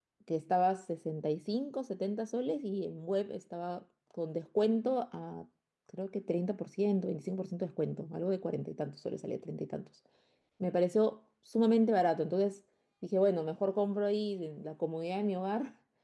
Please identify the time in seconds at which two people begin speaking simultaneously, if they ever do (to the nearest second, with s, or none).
none